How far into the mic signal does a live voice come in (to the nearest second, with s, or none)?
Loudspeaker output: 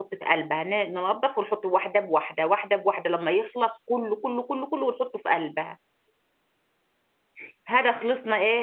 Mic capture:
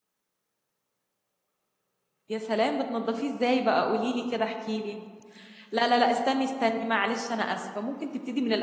2 s